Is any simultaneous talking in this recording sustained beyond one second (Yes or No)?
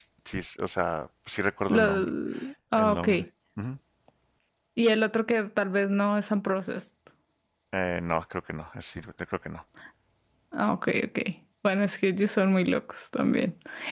No